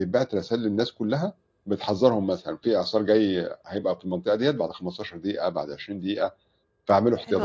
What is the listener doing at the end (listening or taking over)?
taking over